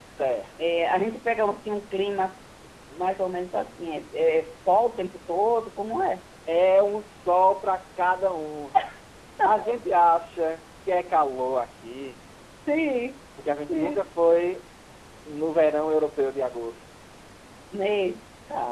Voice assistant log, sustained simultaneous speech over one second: none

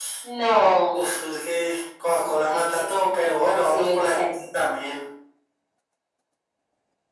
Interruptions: present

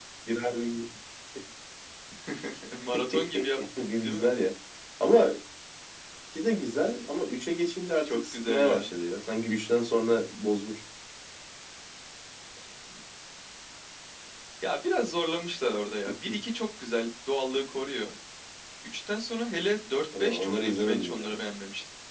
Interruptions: present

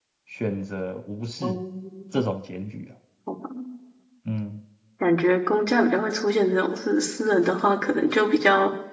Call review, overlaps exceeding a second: none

